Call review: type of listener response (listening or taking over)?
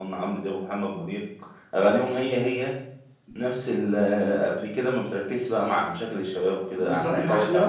taking over